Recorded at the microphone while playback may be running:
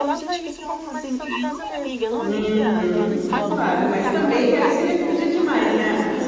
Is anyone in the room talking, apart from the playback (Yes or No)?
Yes